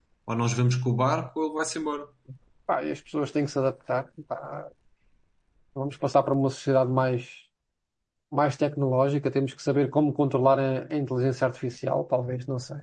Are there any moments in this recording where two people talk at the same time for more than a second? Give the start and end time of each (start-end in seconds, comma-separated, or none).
none